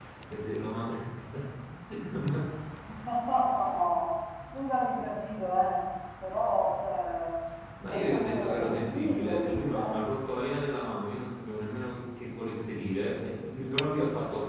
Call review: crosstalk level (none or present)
present